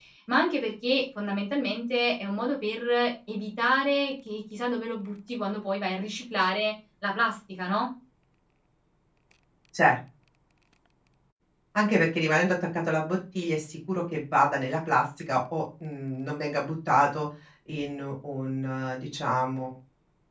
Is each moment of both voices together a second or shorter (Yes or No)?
Yes